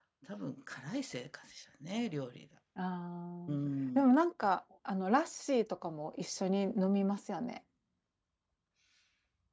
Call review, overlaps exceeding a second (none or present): none